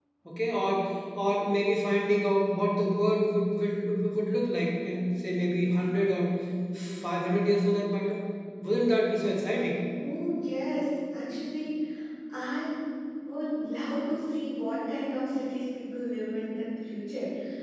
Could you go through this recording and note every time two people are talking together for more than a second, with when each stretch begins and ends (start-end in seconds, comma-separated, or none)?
none